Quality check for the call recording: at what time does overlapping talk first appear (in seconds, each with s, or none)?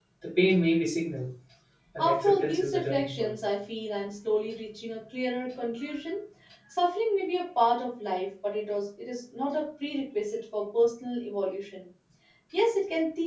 2.0 s